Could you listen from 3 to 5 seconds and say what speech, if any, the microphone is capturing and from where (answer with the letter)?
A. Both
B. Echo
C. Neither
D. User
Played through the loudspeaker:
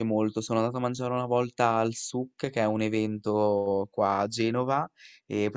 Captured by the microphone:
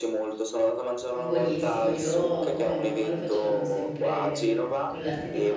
A